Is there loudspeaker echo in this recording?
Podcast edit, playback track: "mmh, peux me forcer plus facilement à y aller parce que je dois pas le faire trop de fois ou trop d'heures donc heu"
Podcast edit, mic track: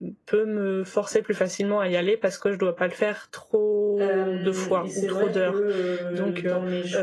Yes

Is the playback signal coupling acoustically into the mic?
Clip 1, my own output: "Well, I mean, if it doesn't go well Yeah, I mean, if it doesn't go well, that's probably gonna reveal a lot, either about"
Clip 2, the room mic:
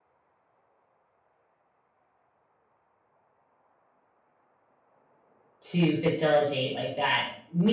No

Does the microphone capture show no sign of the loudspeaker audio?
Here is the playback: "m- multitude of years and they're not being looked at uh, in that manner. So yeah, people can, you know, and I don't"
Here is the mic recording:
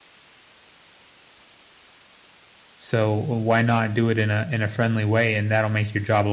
Yes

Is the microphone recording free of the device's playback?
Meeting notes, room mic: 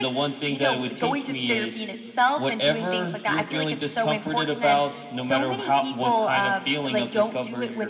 No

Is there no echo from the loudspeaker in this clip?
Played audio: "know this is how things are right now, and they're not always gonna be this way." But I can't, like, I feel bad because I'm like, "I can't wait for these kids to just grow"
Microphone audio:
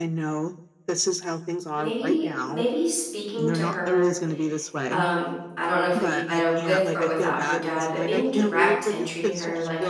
No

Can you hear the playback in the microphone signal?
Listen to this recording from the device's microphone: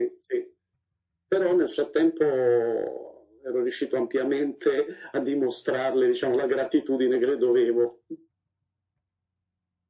Yes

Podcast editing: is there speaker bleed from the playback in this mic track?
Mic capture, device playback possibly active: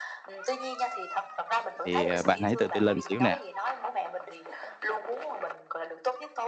Yes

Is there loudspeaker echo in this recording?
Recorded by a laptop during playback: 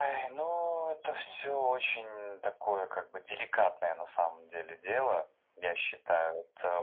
Yes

